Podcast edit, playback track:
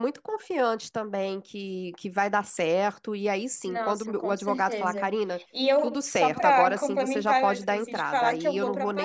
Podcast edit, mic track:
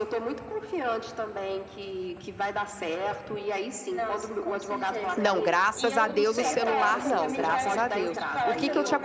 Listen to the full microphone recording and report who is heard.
both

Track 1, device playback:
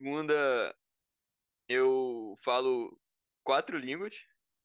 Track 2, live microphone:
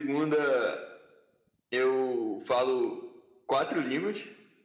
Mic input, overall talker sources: echo only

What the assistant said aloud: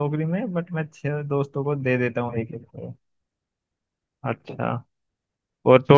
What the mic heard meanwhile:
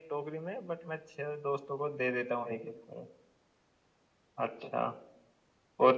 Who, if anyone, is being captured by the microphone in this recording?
echo only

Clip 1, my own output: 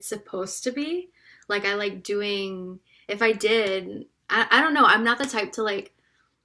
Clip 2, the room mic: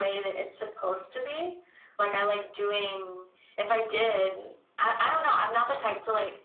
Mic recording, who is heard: echo only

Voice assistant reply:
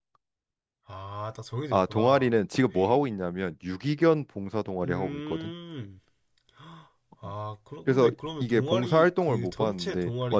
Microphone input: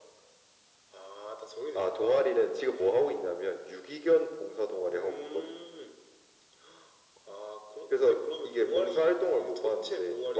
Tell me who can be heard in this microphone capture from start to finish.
echo only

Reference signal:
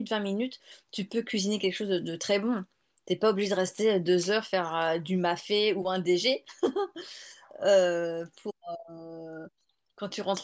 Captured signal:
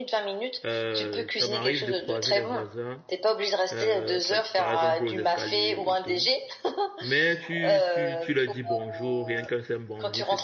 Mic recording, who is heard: both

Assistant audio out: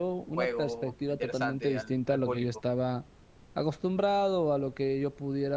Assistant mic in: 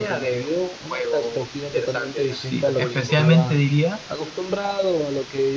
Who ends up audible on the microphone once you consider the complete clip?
both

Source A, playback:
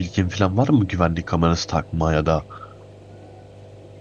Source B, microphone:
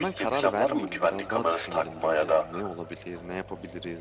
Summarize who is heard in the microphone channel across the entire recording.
both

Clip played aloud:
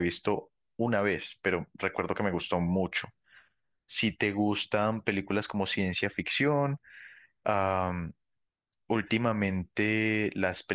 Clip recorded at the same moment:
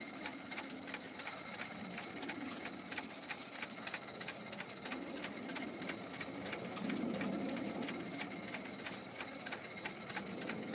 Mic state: neither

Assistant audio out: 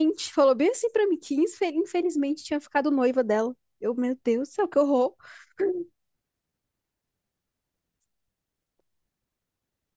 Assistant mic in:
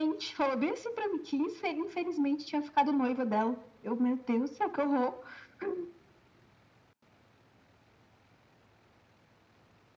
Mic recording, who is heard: echo only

